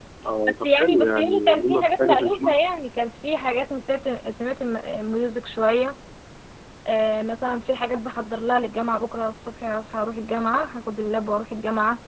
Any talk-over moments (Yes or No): Yes